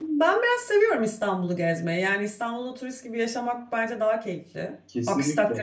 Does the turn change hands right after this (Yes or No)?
No